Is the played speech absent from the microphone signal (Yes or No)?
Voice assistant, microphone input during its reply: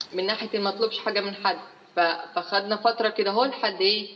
Yes